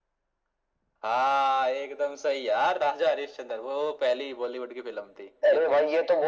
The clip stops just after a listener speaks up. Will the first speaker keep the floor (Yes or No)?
No